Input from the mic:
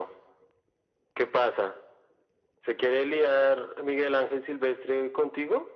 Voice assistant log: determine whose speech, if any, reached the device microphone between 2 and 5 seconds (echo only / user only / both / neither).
echo only